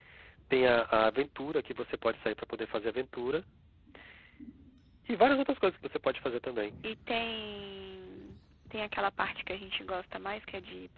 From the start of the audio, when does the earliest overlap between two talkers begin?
none

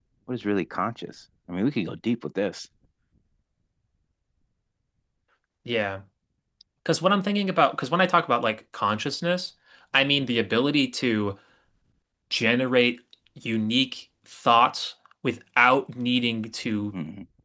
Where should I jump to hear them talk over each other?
none

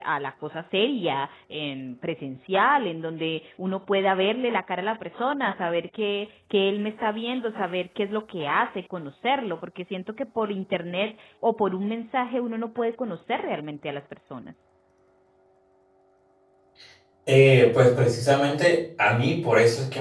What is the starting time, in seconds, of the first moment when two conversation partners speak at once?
none

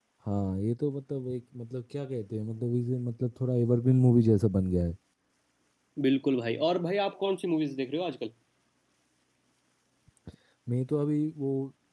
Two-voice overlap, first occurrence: none

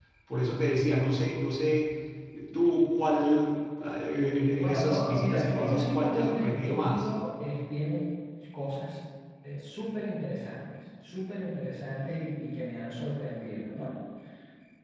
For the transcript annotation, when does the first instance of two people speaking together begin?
4.6 s

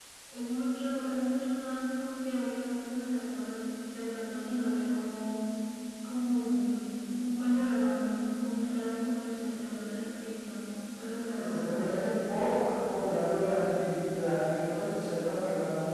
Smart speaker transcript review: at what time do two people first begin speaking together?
11.3 s

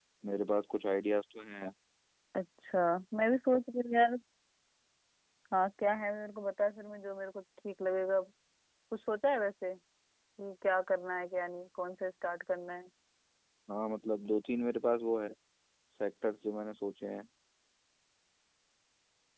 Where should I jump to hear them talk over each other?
none

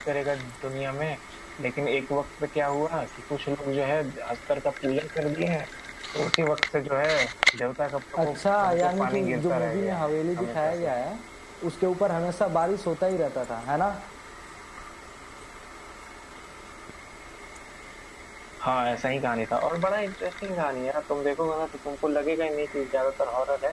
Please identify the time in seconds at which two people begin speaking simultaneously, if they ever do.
8.2 s

